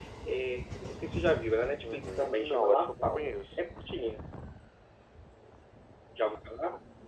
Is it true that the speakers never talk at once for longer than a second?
No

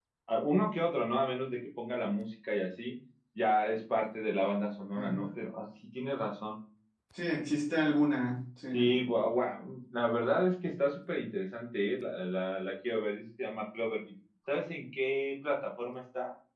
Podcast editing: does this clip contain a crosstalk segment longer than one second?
No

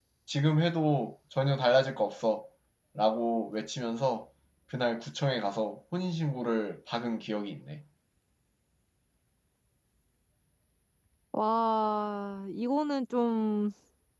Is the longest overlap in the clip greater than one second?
No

